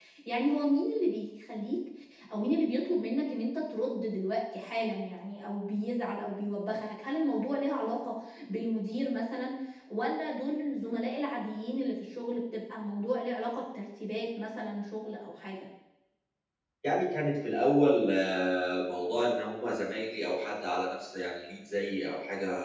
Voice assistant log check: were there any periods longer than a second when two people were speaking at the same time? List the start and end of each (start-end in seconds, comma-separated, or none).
none